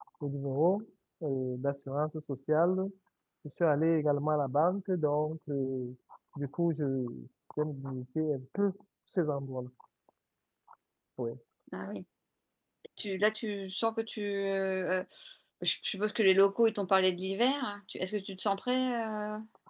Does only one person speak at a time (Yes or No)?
Yes